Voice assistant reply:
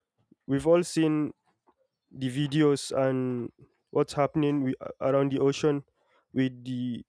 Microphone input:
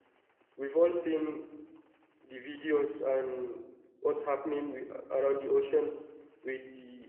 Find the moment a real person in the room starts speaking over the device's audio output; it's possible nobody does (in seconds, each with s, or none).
none